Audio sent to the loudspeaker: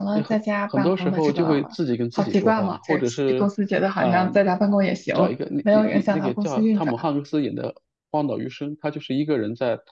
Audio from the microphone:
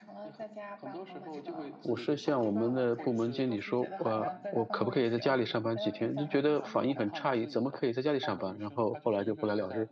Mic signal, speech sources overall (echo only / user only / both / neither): both